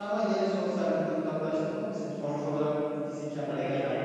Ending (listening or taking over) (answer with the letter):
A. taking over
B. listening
A